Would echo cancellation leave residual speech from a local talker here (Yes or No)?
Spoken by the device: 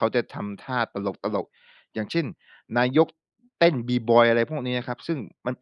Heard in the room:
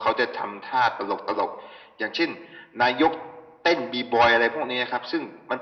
No